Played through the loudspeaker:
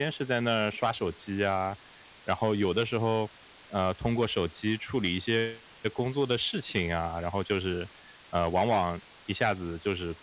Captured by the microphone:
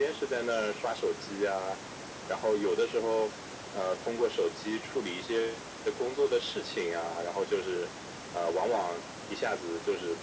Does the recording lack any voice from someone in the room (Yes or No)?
Yes